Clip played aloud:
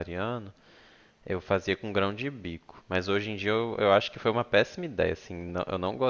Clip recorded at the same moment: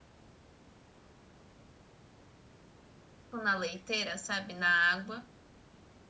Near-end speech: present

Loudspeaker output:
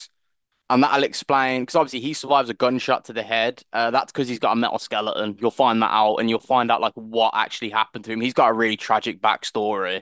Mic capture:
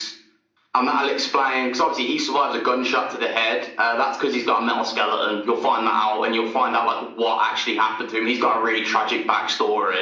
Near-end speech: none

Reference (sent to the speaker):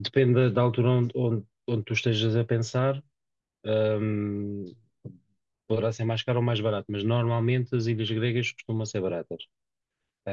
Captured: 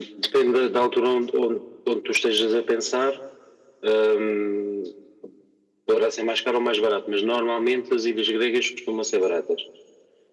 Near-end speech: none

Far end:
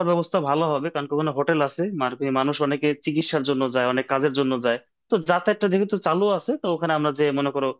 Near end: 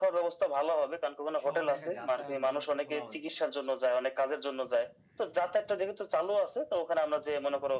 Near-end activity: present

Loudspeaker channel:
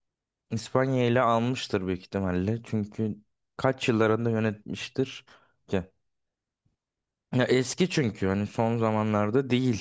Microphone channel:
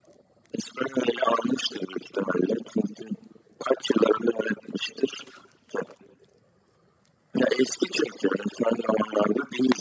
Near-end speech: none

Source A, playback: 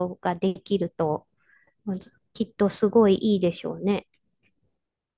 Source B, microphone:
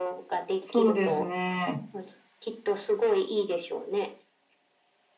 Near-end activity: present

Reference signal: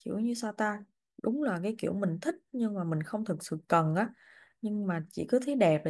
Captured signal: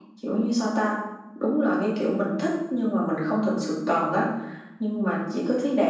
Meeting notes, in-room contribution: none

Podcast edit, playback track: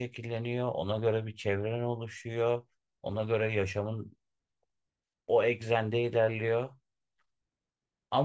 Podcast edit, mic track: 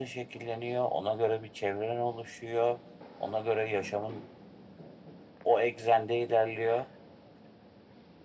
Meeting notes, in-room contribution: none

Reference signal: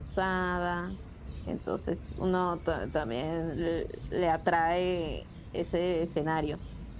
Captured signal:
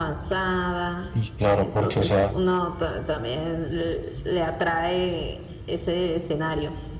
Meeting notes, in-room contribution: present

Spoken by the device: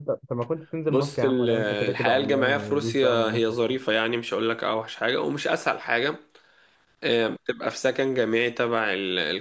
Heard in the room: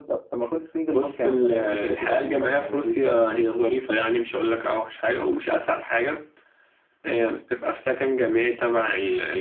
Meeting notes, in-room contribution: none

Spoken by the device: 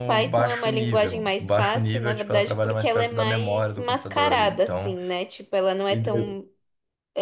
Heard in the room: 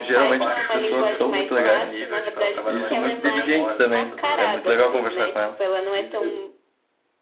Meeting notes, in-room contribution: present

